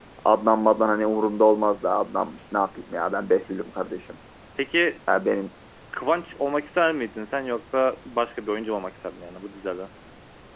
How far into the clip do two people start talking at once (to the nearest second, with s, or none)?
none